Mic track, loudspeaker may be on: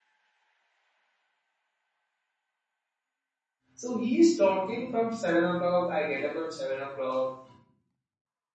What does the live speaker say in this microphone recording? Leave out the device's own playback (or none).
So he is talking from seven o'clock. I get up at seven o'clock.